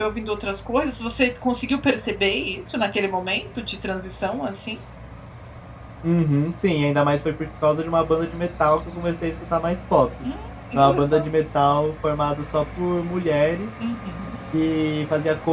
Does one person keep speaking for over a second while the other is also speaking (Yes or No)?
No